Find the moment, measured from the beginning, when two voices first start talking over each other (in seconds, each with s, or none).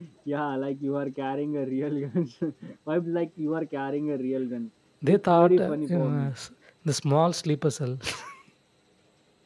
5.0 s